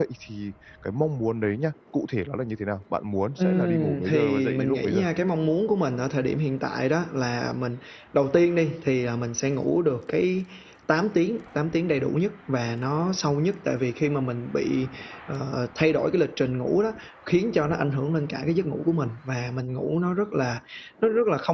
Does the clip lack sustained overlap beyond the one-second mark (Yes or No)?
No